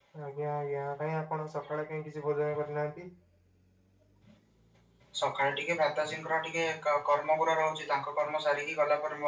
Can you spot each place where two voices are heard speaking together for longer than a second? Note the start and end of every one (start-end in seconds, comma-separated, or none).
none